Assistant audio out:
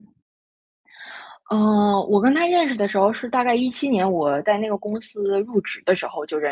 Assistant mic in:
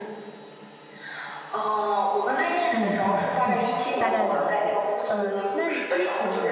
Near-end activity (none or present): present